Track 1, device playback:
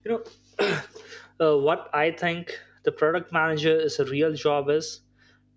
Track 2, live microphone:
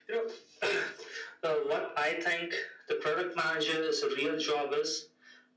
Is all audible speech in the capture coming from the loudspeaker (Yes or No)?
Yes